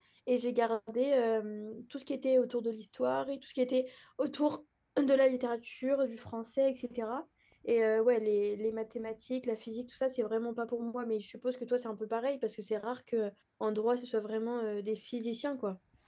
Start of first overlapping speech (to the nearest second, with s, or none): none